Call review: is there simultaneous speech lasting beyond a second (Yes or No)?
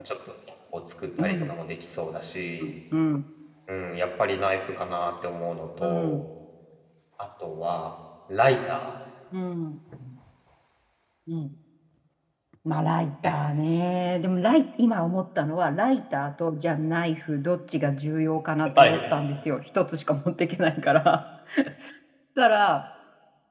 No